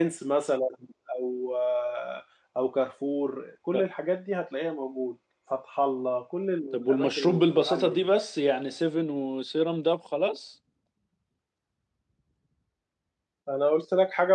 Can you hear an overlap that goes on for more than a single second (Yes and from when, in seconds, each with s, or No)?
Yes, from 6.7 s